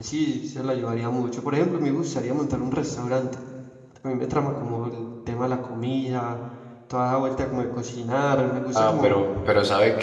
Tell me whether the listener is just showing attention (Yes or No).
No